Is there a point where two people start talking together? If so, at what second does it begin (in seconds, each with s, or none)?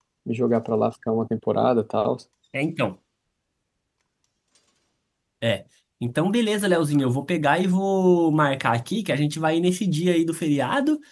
none